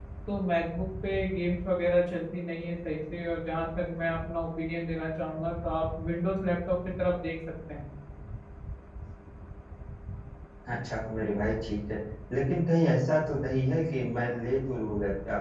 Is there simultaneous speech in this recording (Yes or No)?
No